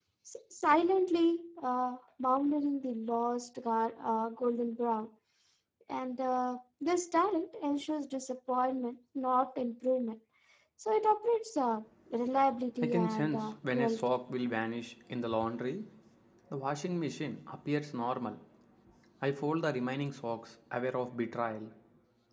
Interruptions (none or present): present